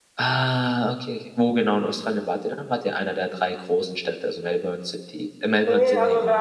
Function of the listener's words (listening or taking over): taking over